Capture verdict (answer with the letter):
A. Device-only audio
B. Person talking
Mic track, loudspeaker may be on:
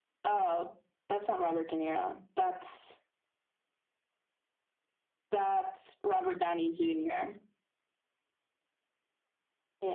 A